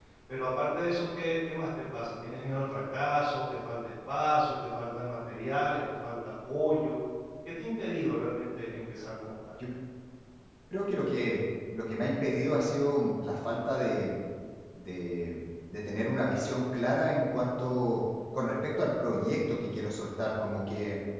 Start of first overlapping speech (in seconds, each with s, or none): none